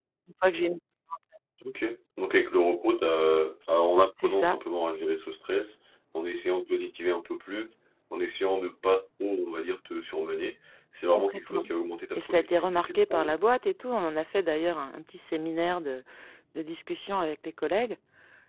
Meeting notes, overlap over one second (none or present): present